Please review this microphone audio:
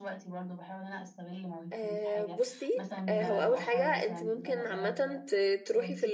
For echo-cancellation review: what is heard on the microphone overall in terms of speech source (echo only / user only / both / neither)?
both